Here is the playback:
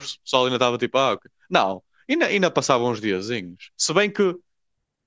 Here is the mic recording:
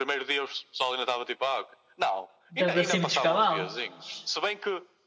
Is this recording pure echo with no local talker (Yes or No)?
No